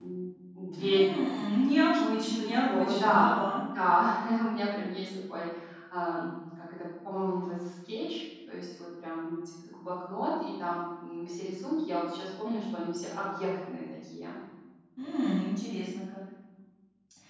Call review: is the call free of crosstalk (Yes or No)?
No